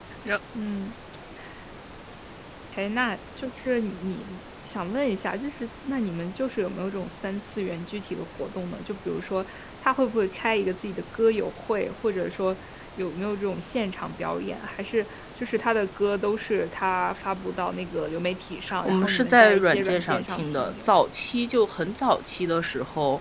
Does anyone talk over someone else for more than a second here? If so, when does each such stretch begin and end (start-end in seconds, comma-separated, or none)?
18.9-20.9